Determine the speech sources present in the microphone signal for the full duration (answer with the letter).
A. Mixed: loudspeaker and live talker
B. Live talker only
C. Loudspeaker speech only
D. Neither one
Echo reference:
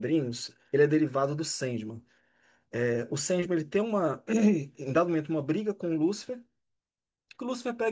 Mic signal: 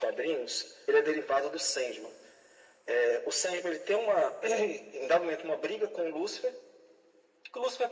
C